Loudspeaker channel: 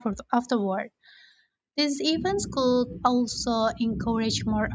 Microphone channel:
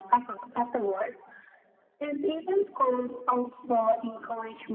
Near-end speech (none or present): none